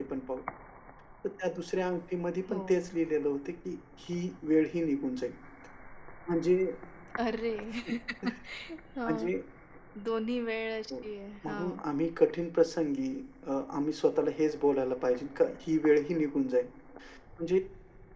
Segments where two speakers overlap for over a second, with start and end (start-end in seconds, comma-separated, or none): none